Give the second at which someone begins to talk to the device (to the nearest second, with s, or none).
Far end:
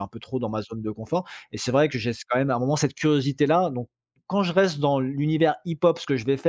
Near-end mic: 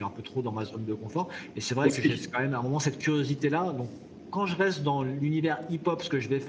2 s